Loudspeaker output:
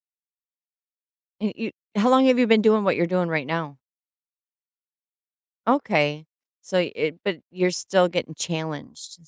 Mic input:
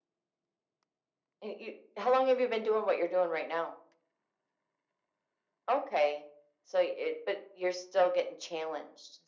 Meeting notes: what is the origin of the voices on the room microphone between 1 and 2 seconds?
echo only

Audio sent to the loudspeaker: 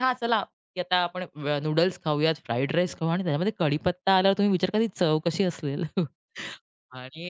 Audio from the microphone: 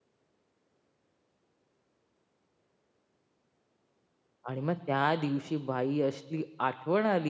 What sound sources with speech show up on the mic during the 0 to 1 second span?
neither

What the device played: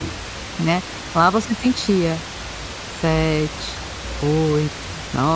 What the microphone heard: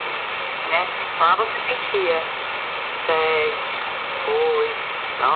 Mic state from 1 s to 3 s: echo only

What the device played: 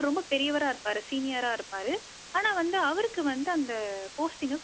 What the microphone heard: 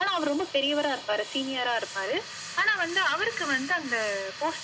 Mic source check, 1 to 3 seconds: echo only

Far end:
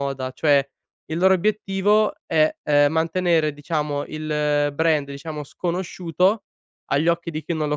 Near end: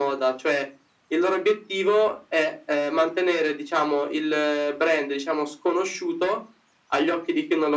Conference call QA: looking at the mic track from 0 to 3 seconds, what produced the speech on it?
echo only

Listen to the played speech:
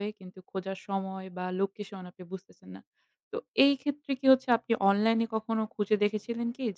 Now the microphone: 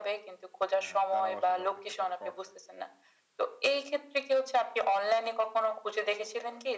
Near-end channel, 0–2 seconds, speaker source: both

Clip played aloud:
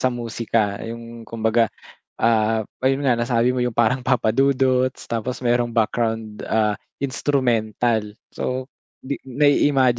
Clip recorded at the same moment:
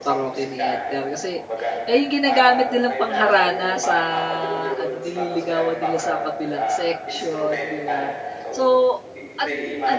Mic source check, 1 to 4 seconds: both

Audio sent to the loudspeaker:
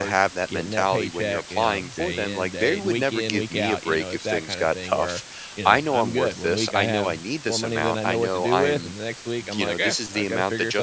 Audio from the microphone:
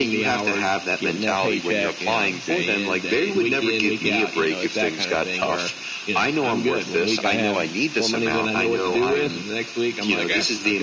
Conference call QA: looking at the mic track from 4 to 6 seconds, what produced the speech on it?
echo only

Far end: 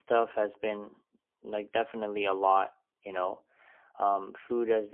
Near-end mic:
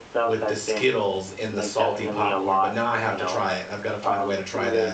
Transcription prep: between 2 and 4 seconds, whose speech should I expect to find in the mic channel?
both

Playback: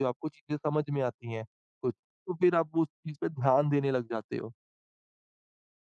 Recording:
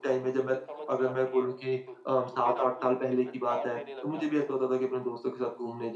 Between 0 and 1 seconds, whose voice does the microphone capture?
both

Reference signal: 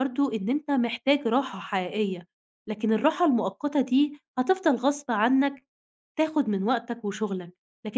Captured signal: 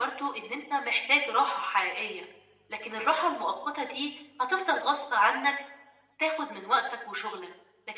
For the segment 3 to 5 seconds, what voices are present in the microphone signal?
echo only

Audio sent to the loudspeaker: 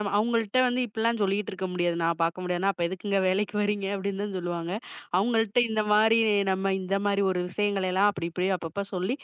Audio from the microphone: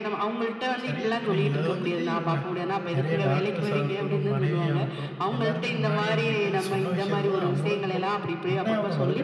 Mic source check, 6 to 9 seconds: both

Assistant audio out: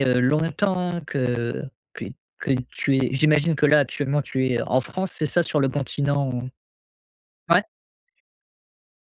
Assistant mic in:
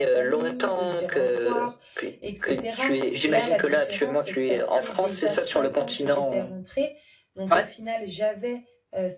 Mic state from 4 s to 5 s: both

